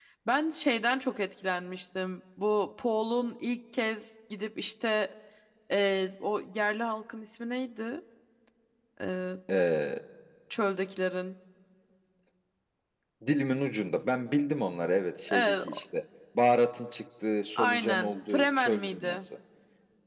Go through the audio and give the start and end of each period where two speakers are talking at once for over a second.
17.6-19.2

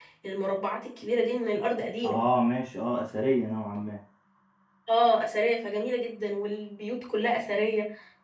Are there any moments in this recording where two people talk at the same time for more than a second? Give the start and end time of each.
none

